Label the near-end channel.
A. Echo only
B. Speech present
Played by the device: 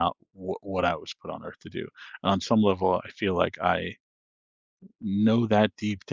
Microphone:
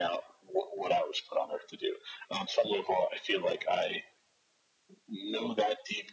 A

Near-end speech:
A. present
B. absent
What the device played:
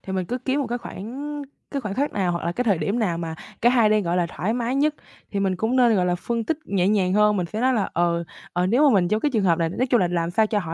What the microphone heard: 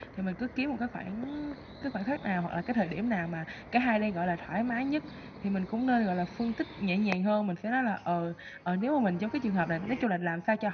B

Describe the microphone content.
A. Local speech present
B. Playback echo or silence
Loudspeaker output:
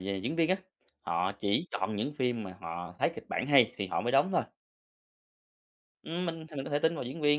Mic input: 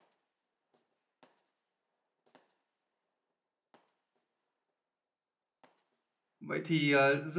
A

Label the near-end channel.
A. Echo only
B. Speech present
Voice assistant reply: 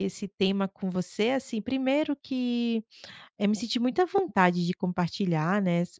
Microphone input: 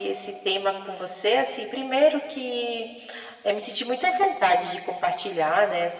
A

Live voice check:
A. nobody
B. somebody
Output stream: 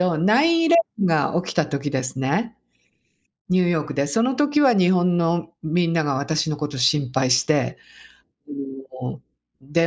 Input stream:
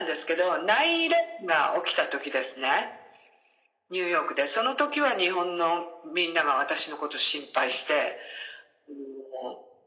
A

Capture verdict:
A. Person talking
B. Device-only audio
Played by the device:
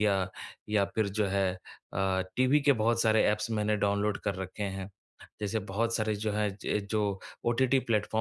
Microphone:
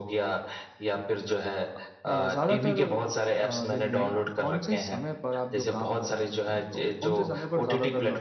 A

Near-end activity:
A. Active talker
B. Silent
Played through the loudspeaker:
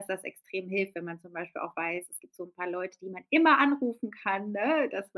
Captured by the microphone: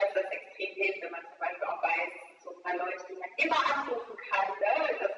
B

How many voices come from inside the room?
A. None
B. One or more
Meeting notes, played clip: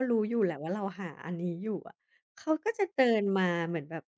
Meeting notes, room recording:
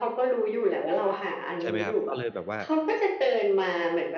B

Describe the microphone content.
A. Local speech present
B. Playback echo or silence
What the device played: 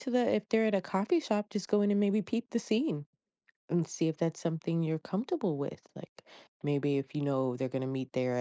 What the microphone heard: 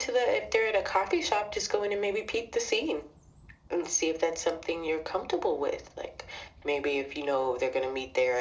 B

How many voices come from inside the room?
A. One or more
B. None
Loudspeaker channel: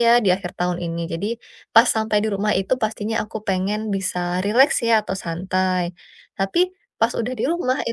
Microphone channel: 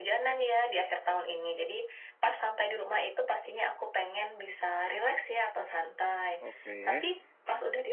A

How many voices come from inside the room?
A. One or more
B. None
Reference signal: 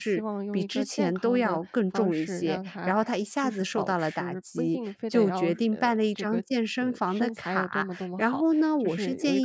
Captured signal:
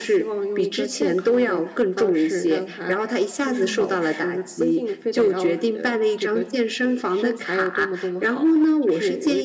A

